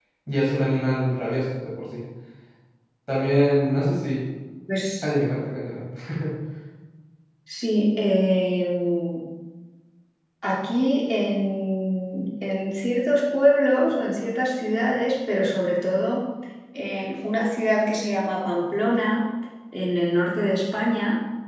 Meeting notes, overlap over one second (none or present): none